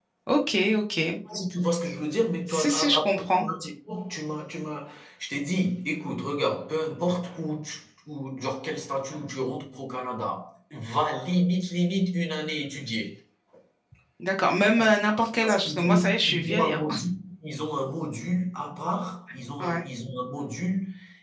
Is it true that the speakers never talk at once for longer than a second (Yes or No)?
No